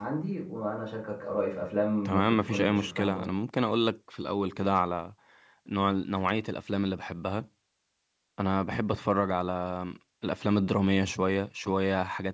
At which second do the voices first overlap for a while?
2.0 s

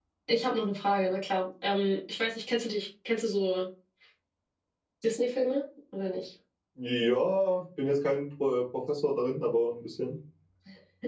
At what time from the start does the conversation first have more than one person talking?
none

